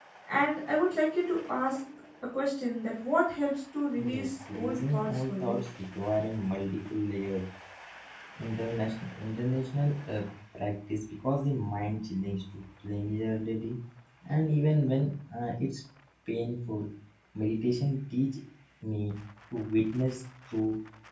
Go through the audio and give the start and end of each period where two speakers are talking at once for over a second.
4.1-5.6

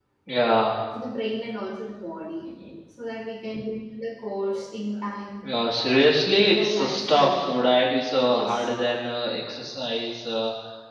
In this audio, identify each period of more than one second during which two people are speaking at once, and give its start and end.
6.3-7.6

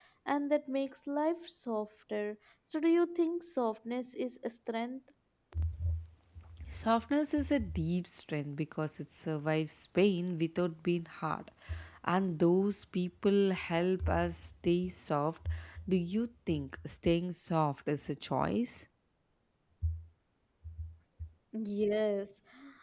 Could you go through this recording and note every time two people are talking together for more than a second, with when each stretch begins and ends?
none

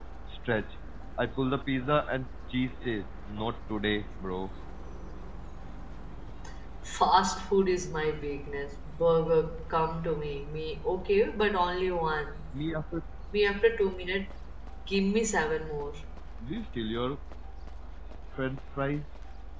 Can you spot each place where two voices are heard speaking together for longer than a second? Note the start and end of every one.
none

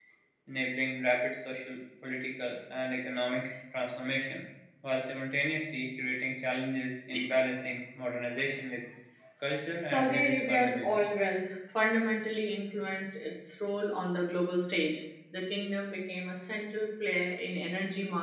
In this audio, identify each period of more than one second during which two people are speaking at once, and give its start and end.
9.8-11.0

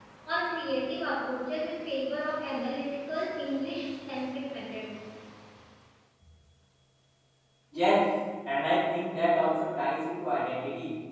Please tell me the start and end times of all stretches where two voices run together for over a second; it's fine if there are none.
none

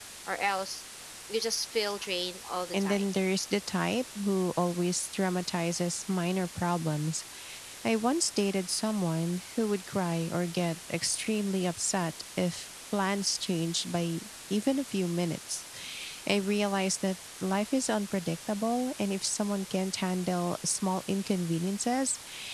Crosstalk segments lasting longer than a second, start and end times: none

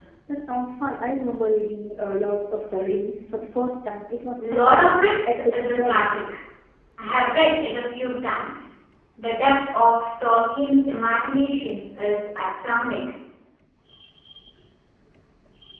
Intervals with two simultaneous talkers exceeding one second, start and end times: 4.4-6.1

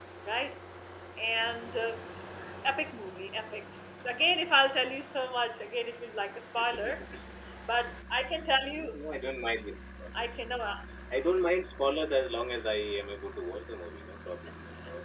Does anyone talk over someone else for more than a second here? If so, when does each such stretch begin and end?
none

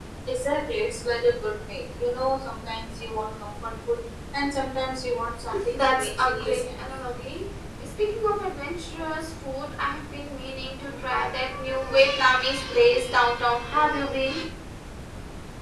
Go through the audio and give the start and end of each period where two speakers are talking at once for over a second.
5.7-7.0

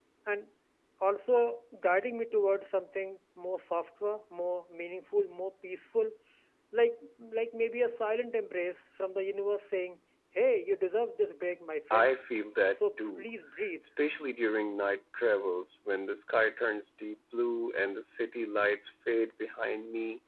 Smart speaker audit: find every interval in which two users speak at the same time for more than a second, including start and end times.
none

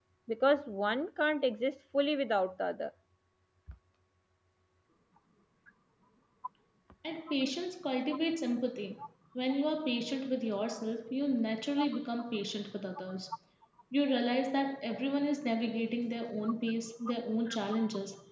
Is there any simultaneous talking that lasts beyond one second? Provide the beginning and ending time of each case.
none

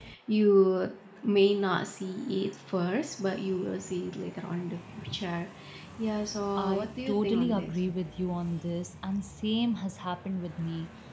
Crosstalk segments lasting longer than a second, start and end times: 6.6-7.8

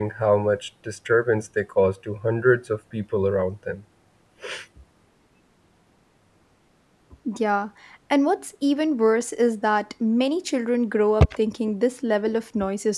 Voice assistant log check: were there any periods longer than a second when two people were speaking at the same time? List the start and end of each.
none

